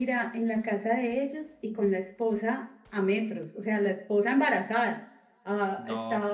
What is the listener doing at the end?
listening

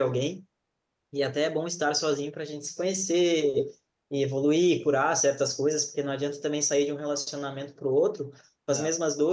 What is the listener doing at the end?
listening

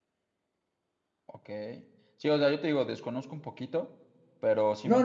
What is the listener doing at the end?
taking over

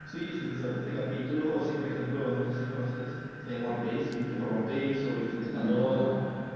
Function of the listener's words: taking over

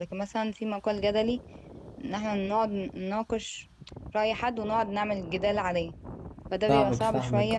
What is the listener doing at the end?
taking over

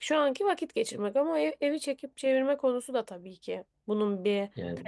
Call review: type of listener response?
taking over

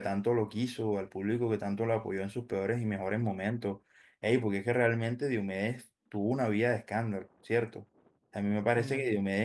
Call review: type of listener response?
listening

